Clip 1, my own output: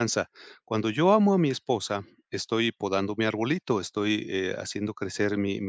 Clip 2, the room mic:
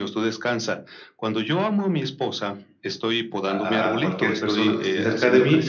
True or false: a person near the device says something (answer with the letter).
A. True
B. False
A